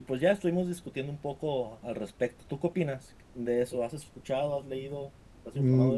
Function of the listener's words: taking over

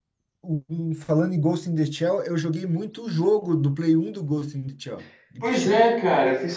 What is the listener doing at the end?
taking over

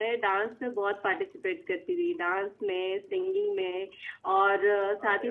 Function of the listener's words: listening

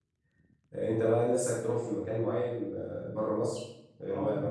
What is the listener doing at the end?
taking over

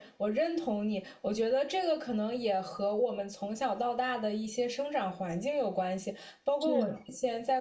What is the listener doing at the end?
listening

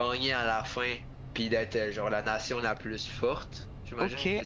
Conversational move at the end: taking over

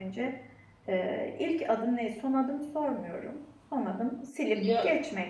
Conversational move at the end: listening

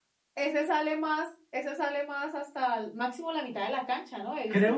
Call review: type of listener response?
taking over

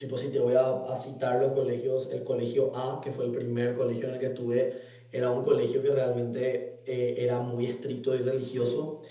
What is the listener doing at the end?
listening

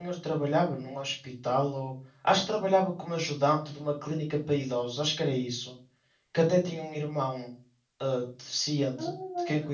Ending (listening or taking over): taking over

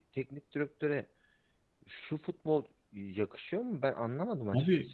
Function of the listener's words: taking over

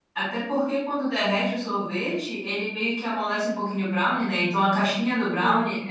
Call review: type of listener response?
listening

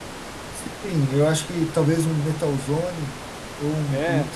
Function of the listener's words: listening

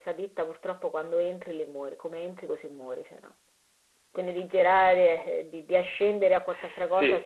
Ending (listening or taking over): taking over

